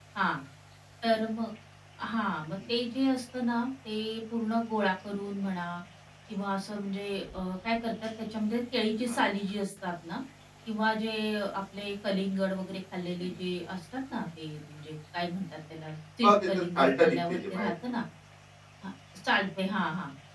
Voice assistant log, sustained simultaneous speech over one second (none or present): present